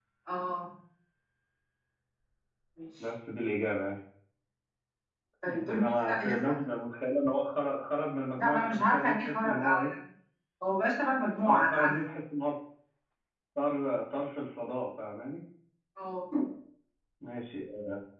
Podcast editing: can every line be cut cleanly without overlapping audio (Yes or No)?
No